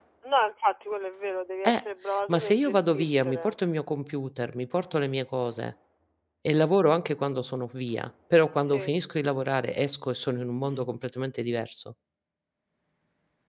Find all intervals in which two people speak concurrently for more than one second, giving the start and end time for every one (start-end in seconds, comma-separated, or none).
2.3-3.5